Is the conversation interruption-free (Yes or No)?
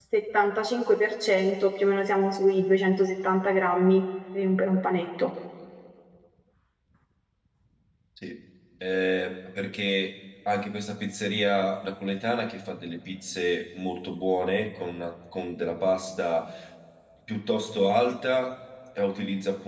Yes